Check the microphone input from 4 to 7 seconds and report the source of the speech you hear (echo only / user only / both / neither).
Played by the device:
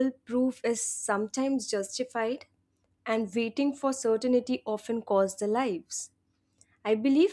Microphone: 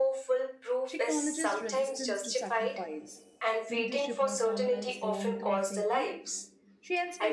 both